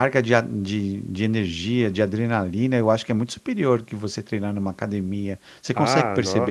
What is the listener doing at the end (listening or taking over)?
taking over